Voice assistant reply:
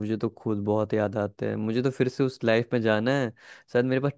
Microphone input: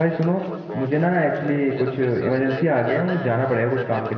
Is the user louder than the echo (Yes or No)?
Yes